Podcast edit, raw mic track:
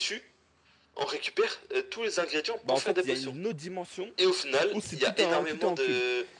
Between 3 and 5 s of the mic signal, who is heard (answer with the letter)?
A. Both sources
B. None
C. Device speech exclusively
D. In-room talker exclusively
A